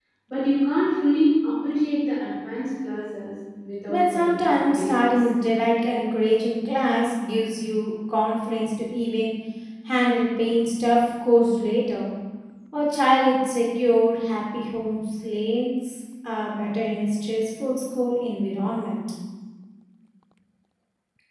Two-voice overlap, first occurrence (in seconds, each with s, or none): 3.9 s